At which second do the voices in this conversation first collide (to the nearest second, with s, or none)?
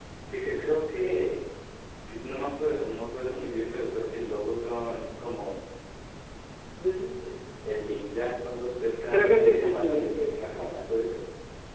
9 s